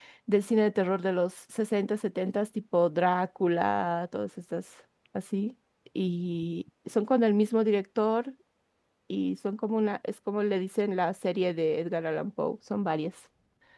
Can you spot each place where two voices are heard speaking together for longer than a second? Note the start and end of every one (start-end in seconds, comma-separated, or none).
none